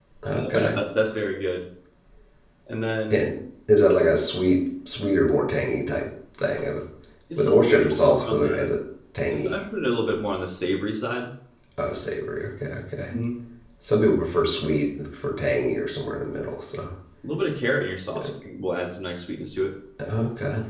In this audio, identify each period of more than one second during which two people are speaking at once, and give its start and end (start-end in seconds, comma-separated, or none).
7.4-8.7